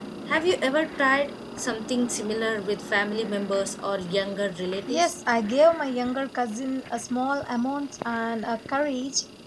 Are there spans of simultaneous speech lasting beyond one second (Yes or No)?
No